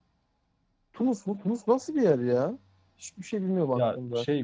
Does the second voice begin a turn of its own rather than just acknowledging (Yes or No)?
Yes